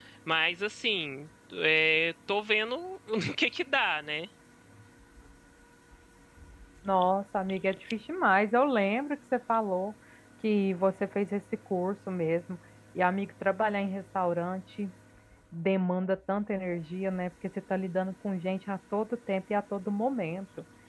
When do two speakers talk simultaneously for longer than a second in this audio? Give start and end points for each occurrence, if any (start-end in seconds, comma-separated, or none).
none